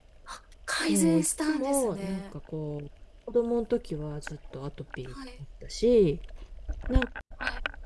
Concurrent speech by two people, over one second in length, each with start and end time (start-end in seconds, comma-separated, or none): 0.9-2.2